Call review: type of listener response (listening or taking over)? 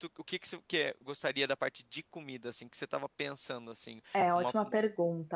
taking over